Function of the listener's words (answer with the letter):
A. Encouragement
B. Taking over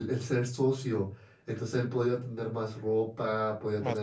A